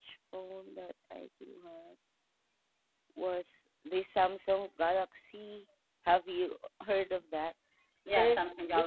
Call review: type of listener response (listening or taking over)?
taking over